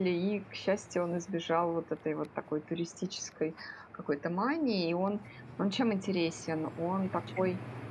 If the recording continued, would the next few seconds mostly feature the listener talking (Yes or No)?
No